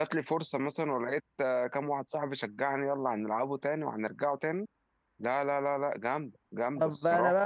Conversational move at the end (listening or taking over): taking over